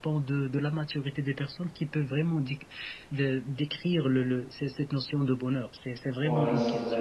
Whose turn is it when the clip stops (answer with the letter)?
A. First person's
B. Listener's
B